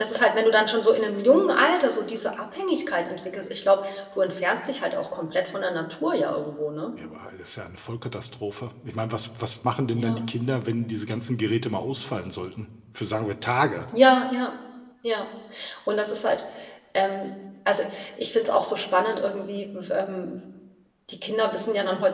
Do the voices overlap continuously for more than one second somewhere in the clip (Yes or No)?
No